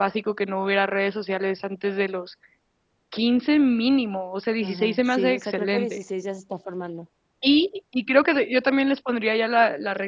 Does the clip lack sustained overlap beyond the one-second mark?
No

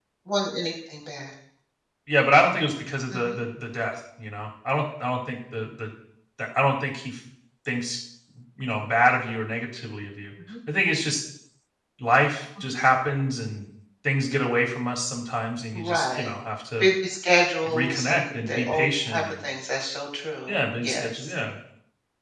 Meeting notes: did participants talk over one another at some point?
Yes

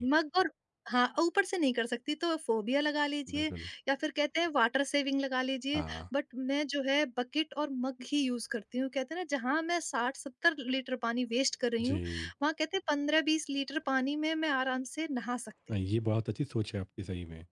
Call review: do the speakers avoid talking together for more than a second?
Yes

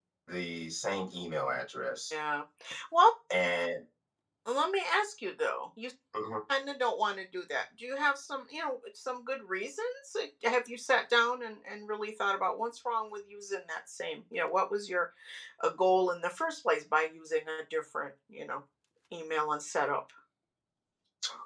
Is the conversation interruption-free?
Yes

